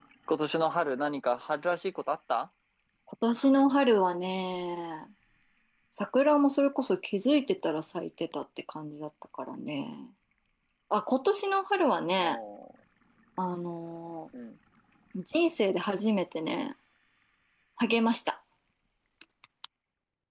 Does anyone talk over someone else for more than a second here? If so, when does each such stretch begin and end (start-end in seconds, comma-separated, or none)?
none